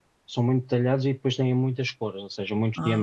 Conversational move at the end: listening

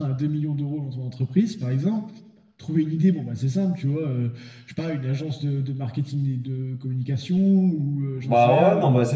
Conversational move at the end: taking over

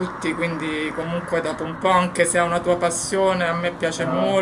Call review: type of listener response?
listening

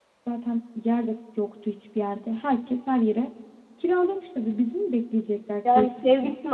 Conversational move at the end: taking over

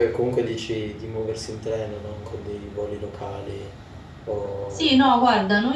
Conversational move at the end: taking over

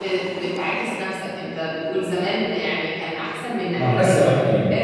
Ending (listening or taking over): taking over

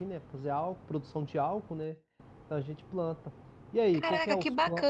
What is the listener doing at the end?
taking over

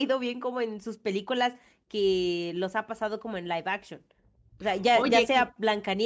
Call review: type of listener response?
listening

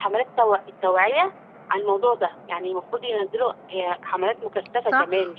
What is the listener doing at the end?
taking over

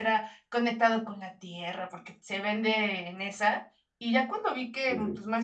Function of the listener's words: listening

